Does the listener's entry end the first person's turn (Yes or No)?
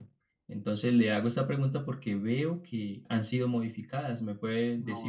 Yes